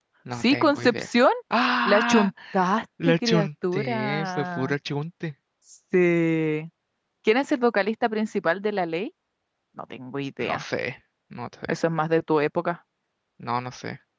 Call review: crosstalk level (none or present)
present